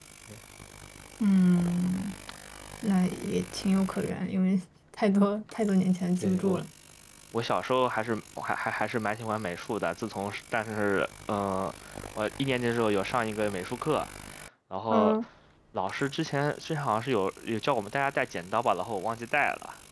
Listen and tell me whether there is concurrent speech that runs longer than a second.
No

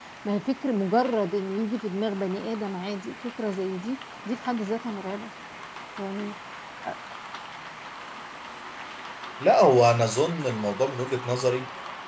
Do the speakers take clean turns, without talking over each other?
Yes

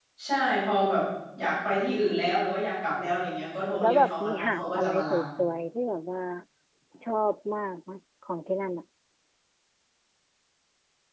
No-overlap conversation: No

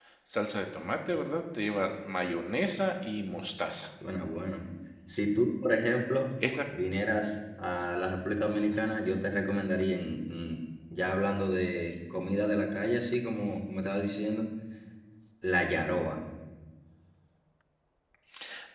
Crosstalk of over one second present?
No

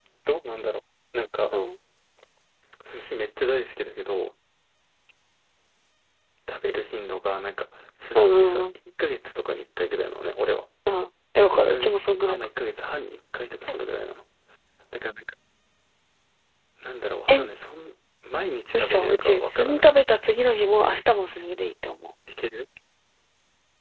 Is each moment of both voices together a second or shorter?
No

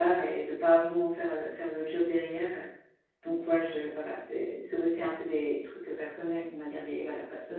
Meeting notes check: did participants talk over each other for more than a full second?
No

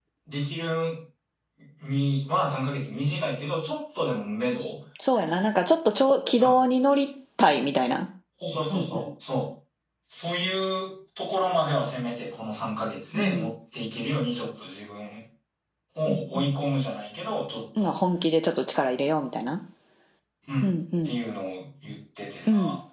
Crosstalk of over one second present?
No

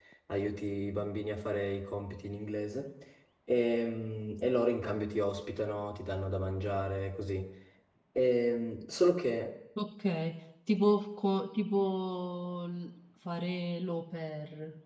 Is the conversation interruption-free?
Yes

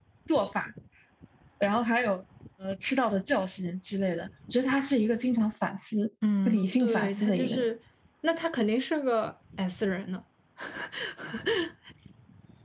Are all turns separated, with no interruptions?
No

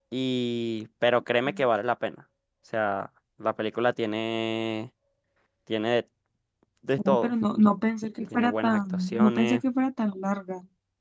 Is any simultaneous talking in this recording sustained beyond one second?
Yes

